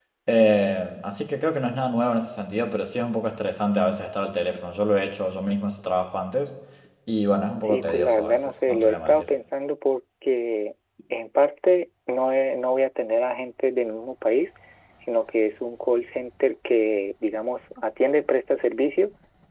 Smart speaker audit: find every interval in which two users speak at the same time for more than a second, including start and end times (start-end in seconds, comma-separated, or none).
7.6-9.3